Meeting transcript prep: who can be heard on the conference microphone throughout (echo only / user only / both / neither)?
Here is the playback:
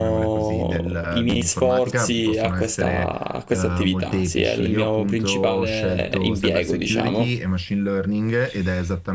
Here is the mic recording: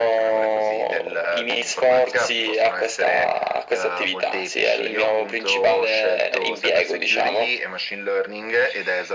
echo only